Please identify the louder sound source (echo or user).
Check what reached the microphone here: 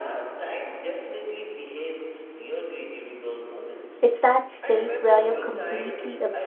user